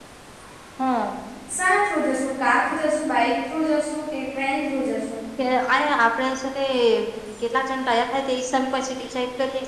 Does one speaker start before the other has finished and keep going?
No

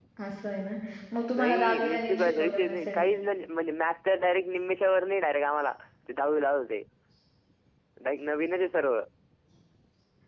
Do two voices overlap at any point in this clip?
Yes, from 1.4 s

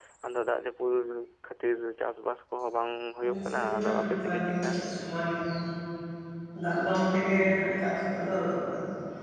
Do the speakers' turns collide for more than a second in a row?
Yes, from 3.2 s

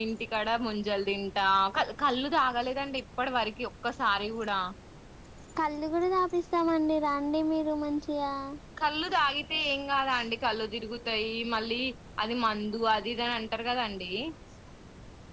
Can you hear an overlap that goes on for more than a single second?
No

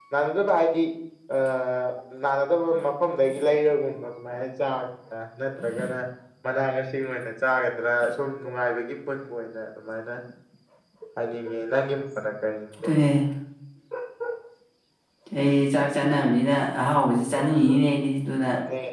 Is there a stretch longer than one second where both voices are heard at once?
No

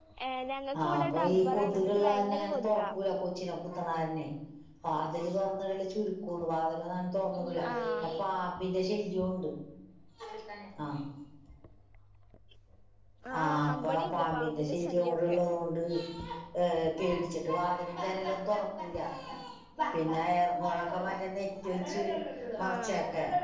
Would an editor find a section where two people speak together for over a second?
Yes, from 0.8 s

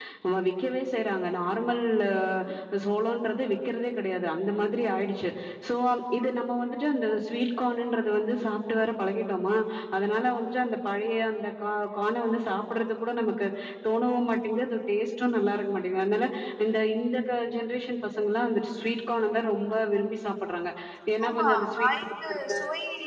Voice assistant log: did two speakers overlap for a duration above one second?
Yes, from 21.3 s

